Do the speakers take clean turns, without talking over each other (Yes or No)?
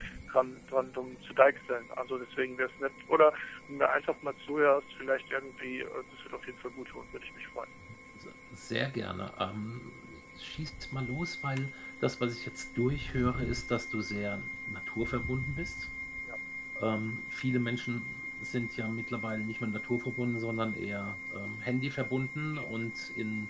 Yes